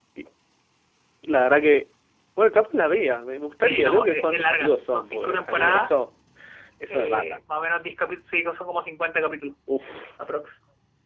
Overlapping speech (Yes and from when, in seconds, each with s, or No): Yes, from 3.6 s